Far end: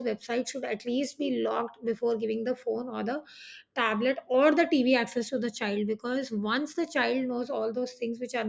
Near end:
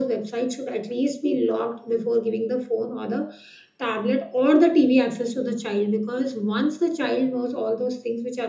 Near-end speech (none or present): none